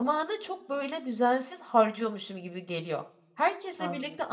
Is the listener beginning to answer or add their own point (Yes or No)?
No